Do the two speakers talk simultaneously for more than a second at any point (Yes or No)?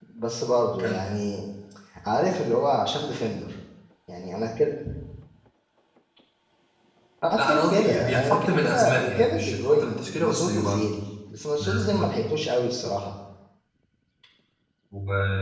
Yes